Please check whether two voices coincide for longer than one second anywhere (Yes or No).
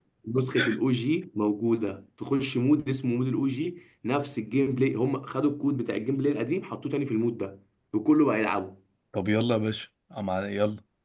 No